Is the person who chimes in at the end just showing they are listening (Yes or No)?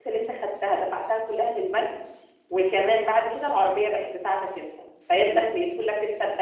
Yes